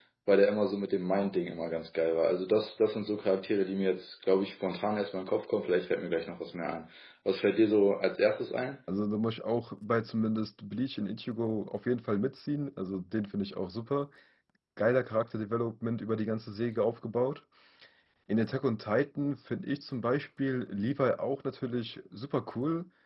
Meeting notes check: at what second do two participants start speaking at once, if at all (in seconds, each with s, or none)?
none